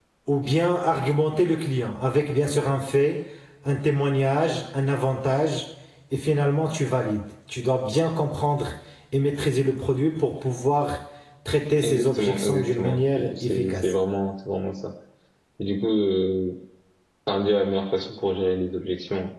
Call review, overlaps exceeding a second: present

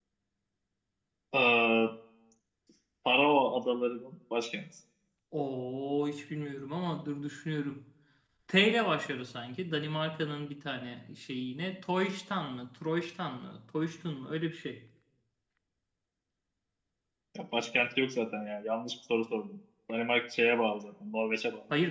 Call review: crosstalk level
none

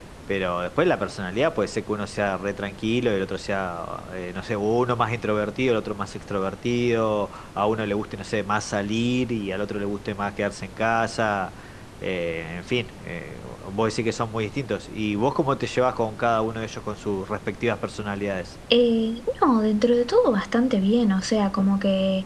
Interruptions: none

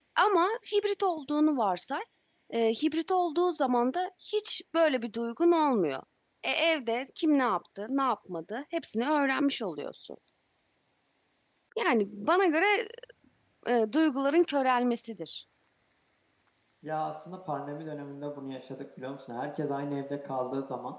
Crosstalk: none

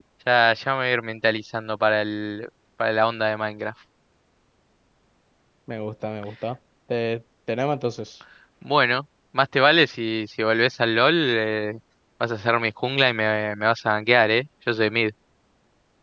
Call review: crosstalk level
none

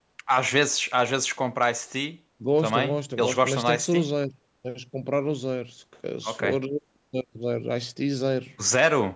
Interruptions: present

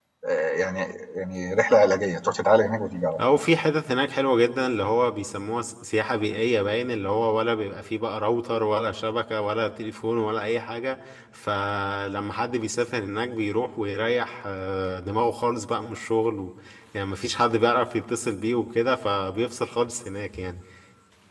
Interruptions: none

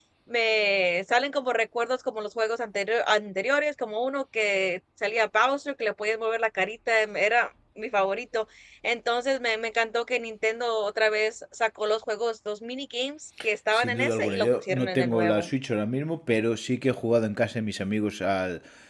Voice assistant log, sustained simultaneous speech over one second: present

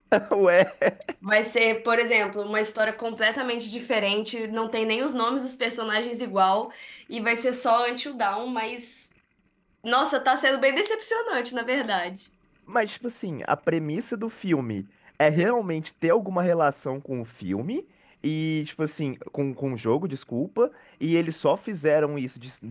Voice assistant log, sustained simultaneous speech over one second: none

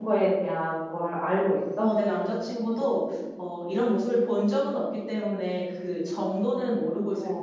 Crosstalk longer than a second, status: none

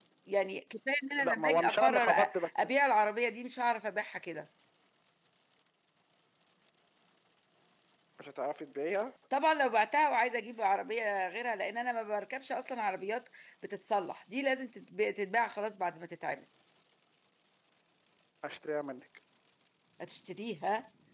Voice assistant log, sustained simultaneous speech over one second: present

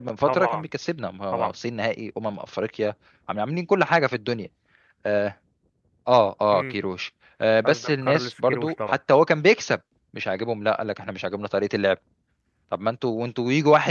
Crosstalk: present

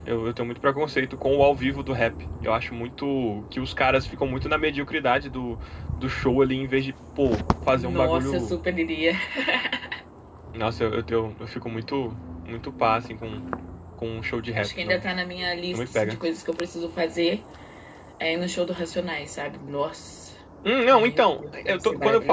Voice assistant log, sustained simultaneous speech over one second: present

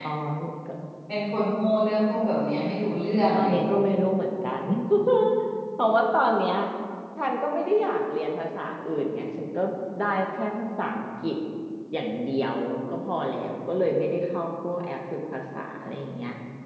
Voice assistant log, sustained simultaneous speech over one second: none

